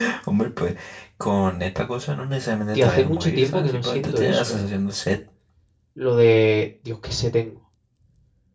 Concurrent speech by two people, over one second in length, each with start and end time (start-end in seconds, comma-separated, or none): 2.7-4.6